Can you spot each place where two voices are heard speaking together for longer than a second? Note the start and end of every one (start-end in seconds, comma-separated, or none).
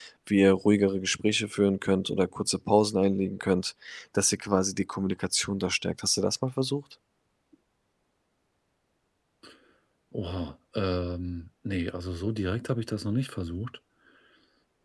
none